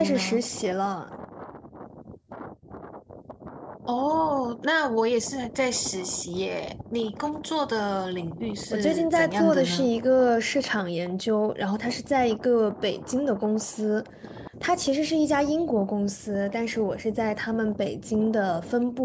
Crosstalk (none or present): present